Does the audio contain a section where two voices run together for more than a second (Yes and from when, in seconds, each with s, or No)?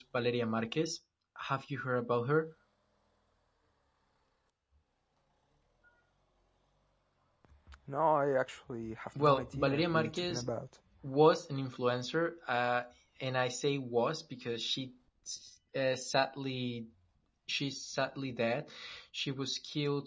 Yes, from 9.2 s